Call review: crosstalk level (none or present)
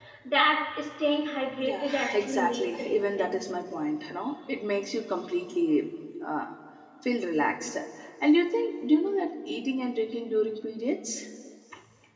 present